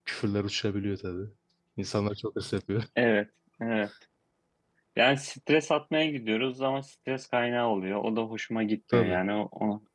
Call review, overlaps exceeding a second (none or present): none